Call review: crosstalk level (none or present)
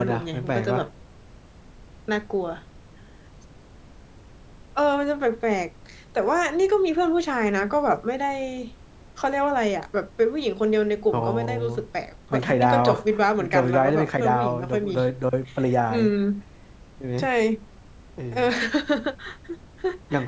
present